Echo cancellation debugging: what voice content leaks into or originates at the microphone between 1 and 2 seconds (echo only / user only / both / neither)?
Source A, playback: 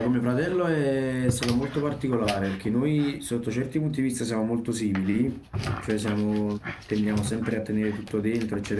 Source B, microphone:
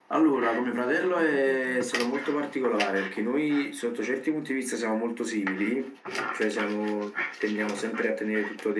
both